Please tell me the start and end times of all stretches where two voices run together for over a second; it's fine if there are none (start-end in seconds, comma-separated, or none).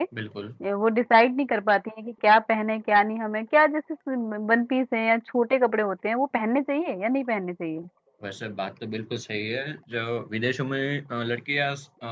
none